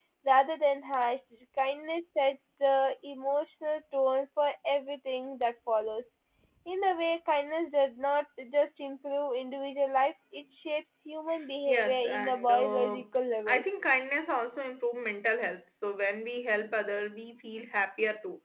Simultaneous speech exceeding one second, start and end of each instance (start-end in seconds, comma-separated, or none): 11.7-13.0